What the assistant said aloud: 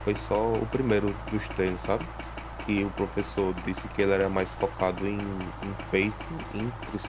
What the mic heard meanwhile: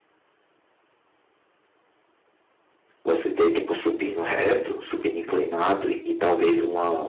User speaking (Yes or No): Yes